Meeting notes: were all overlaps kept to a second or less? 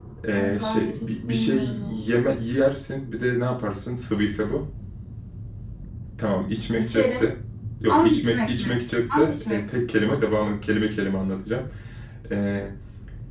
No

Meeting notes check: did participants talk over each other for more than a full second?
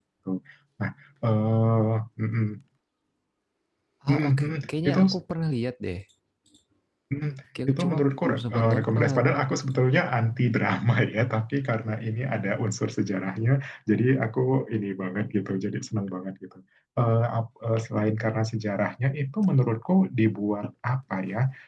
Yes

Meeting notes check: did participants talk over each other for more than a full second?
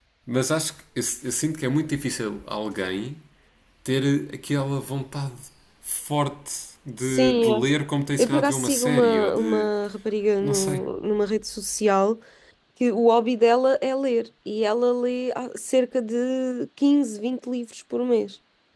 Yes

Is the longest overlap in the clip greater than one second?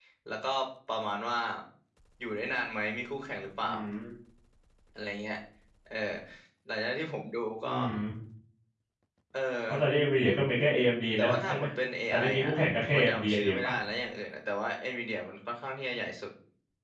Yes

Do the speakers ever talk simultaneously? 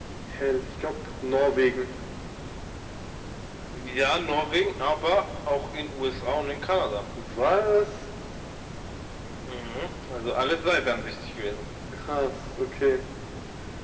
No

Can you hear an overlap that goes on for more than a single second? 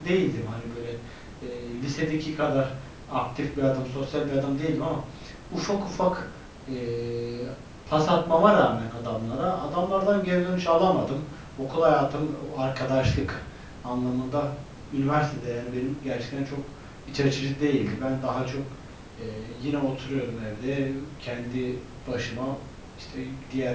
No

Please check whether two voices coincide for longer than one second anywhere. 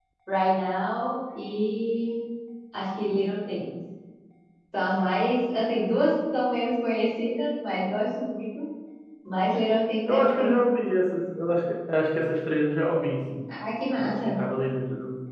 No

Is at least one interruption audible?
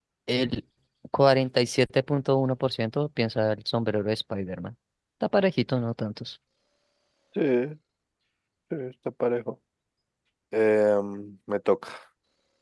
No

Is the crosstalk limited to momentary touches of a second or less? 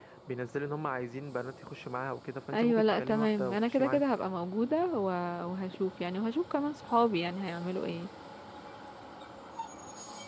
No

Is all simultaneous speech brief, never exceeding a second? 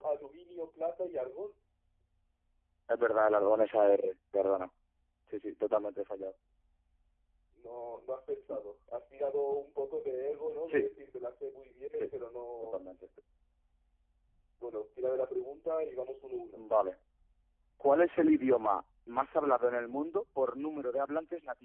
Yes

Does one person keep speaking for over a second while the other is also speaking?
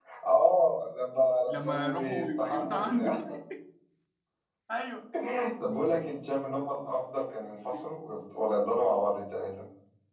Yes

